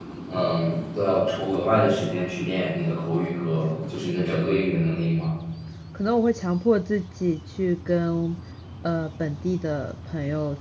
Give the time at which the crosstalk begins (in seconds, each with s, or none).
none